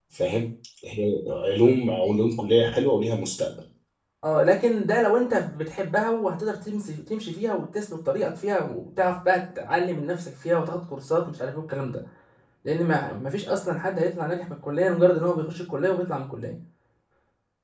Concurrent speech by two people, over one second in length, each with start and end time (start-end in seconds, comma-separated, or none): none